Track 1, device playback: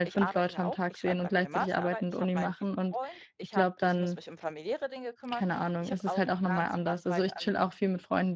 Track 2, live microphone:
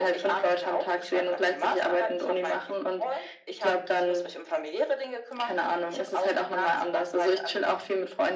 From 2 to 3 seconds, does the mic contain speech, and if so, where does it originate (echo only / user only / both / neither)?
echo only